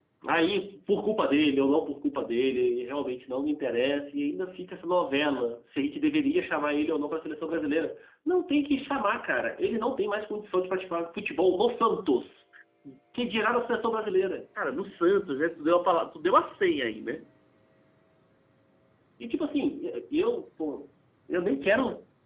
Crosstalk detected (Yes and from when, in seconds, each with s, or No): No